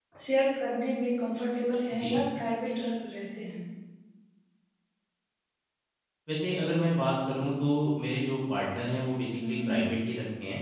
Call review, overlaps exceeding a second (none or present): none